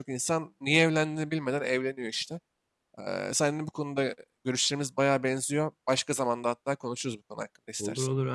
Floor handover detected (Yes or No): Yes